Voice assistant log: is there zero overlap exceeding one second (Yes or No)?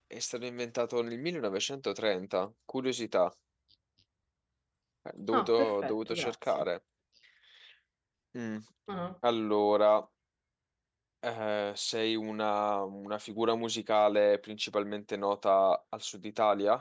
No